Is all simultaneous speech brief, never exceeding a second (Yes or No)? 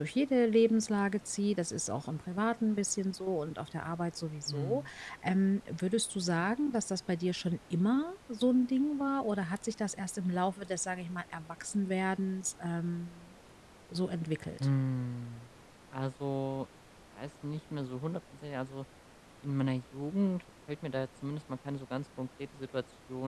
Yes